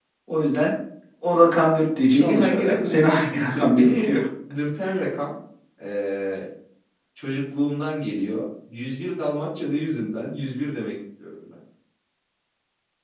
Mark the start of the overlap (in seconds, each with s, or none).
2.0 s